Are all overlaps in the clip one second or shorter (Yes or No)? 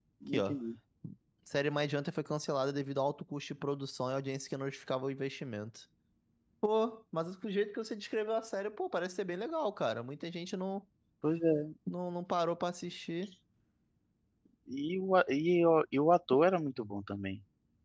Yes